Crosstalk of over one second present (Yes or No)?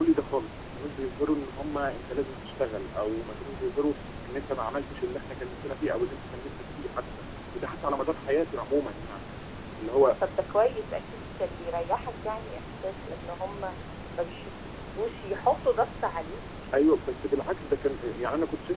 No